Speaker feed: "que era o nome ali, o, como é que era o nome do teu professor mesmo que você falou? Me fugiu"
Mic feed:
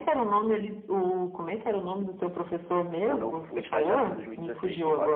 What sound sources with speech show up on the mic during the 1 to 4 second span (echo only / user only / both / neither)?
both